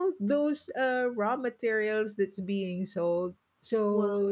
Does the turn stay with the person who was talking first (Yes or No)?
Yes